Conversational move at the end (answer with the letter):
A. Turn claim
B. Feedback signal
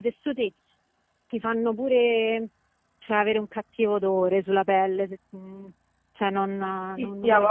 A